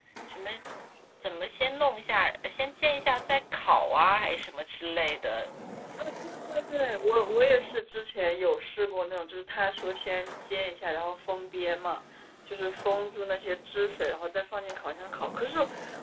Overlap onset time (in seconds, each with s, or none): none